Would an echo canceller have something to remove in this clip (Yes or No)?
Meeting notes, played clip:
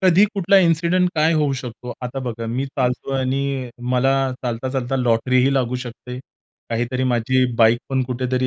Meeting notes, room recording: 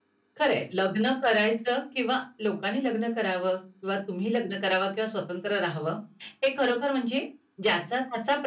No